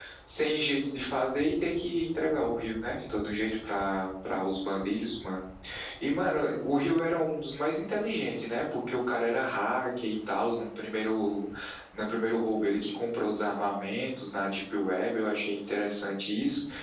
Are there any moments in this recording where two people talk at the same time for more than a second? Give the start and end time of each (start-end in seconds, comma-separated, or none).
none